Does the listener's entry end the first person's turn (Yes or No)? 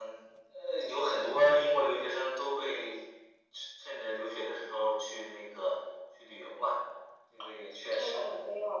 Yes